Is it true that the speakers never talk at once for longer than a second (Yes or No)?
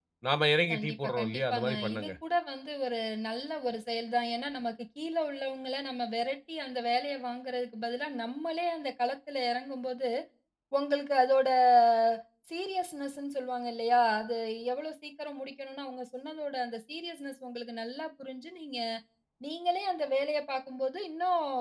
No